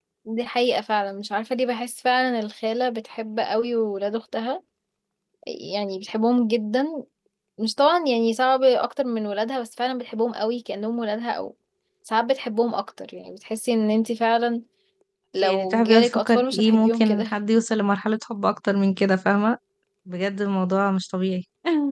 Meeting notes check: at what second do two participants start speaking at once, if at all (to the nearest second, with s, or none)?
15 s